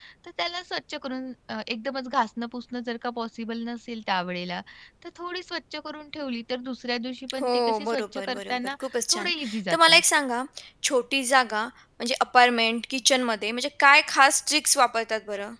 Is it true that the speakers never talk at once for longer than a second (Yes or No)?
No